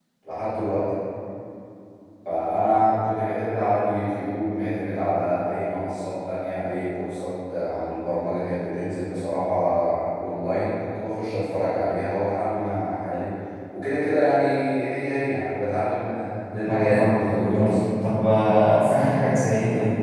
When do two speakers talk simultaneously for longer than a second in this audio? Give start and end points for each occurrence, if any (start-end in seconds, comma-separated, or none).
16.7-17.9